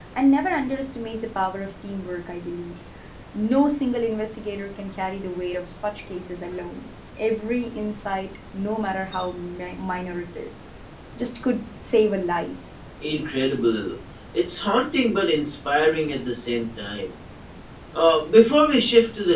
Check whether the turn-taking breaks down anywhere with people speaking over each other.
No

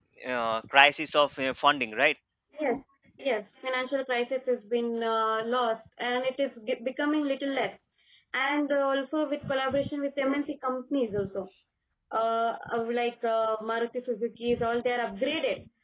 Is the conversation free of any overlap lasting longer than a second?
Yes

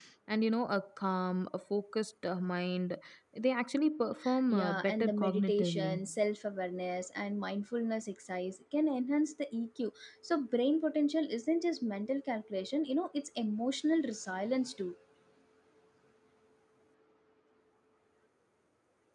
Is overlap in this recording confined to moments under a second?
No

